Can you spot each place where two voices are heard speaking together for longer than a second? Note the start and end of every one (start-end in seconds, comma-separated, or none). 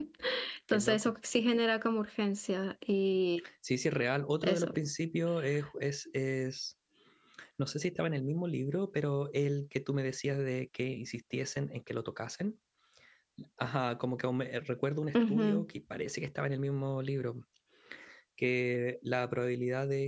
none